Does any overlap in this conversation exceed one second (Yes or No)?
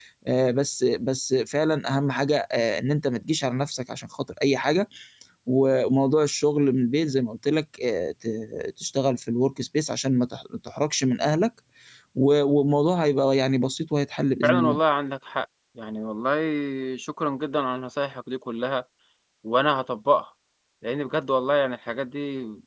No